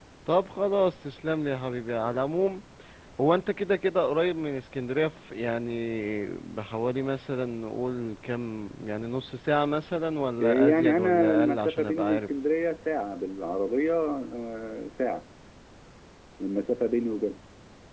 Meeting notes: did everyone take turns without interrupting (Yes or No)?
No